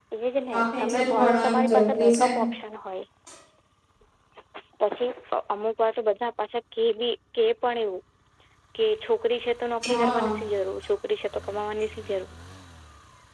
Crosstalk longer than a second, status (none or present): present